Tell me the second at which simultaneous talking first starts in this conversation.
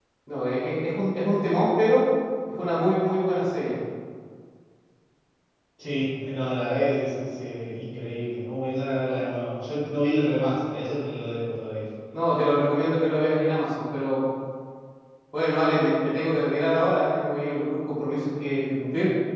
none

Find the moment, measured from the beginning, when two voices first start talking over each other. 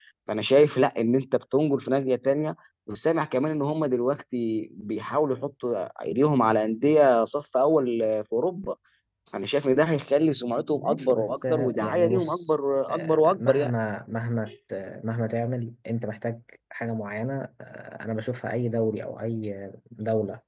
10.8 s

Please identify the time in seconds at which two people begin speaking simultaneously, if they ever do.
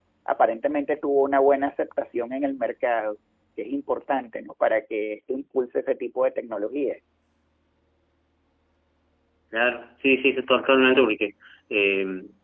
none

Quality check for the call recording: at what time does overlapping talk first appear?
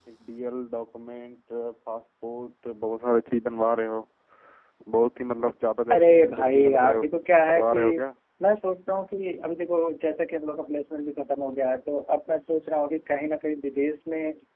5.9 s

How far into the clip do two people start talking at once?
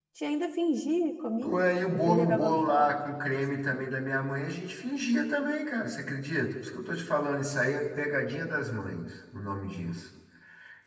1.4 s

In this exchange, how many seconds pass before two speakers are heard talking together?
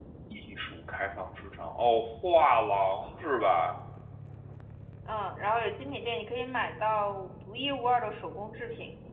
none

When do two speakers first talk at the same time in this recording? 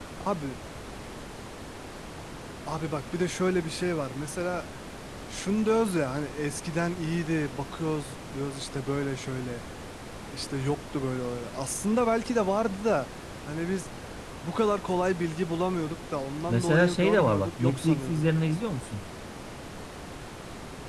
16.5 s

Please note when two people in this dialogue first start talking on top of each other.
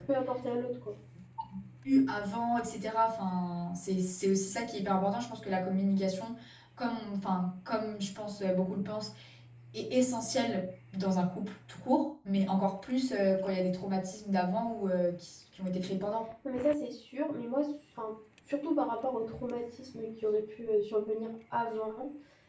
none

